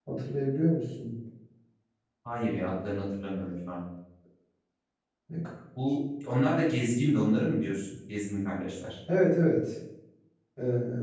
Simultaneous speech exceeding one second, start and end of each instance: none

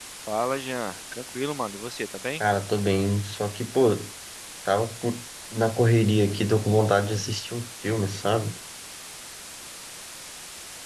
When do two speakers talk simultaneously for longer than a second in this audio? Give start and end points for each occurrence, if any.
none

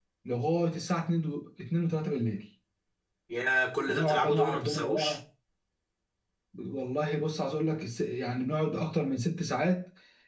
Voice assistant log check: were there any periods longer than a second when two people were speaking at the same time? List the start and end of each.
3.9-5.2

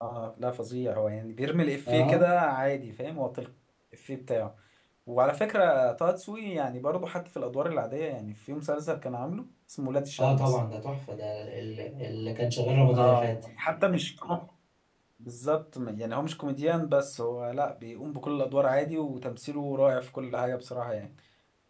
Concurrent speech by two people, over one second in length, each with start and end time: none

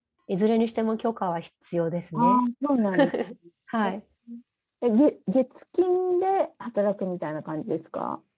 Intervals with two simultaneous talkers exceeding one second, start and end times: none

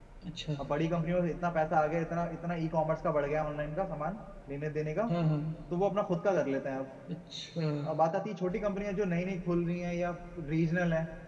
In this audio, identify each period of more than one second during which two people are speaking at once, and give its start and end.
none

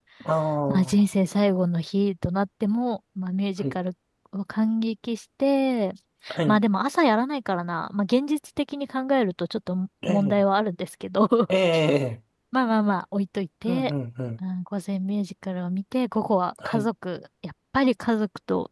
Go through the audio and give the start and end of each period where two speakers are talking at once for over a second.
none

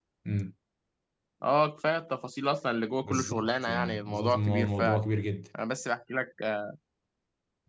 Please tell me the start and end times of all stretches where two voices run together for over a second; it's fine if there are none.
3.0-5.0

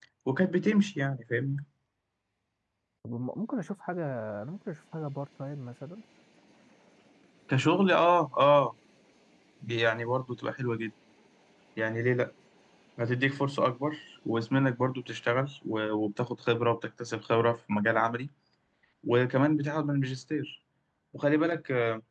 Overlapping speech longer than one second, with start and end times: none

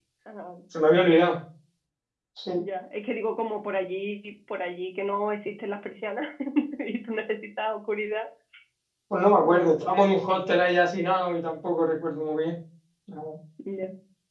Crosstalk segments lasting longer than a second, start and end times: none

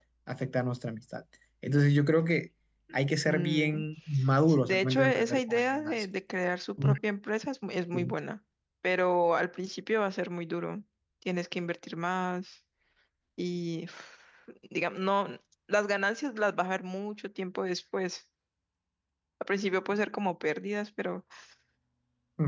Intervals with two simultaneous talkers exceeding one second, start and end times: 4.5-6.0

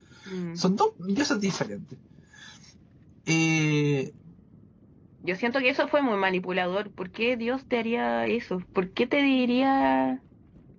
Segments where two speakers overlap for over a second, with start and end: none

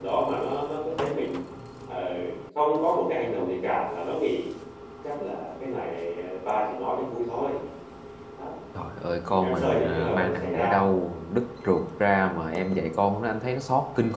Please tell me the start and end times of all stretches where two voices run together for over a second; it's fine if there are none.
9.3-10.8

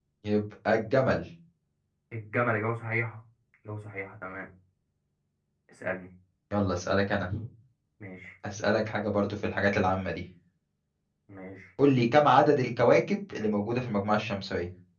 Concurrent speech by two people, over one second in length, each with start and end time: none

